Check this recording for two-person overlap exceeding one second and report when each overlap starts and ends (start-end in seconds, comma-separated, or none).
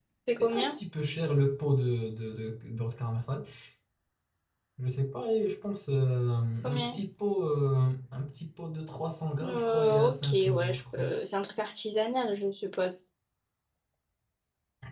9.4-11.1